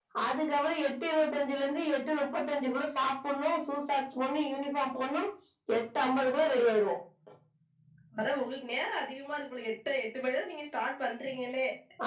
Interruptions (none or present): none